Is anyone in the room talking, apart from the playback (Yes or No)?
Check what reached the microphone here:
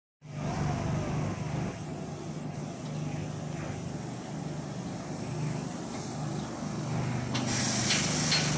No